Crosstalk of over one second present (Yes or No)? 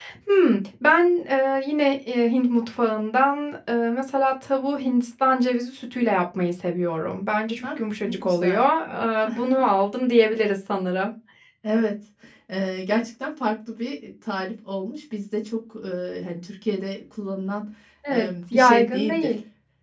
Yes